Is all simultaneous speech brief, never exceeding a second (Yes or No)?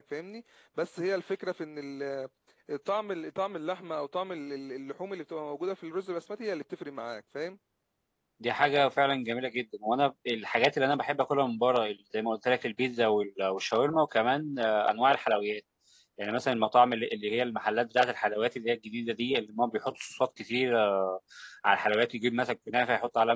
Yes